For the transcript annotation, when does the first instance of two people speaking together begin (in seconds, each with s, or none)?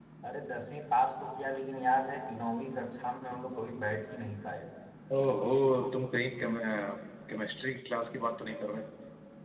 none